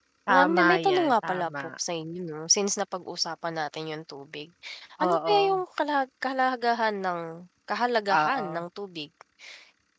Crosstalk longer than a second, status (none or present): present